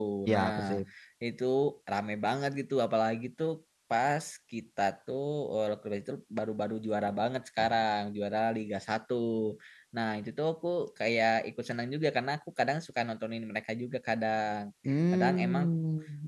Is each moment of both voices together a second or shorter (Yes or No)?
Yes